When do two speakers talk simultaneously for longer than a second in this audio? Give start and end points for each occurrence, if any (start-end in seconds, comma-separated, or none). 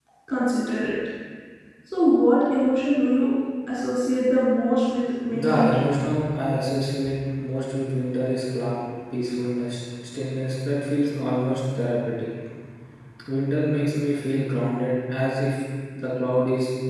none